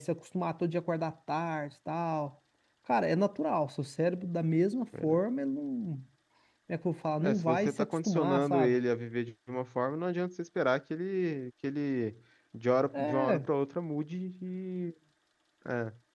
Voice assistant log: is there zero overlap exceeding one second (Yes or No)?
No